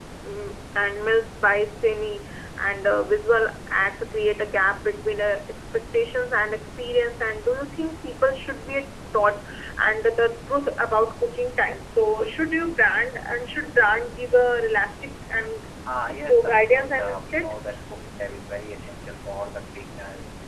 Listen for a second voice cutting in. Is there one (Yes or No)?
Yes